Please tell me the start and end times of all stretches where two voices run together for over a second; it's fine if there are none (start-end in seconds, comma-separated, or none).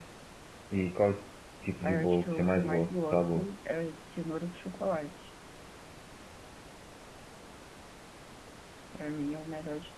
1.8-3.5